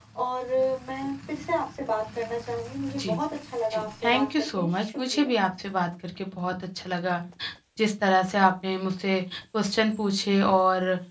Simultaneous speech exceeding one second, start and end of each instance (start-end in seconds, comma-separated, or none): 3.7-5.3